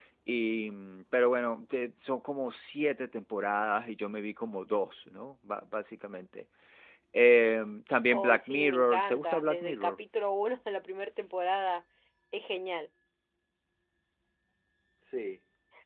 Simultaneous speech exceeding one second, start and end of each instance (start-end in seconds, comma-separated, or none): 8.1-10.0